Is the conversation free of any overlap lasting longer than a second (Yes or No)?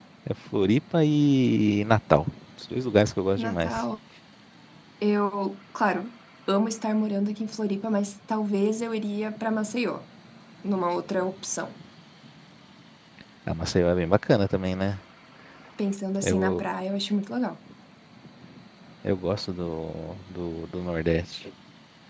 Yes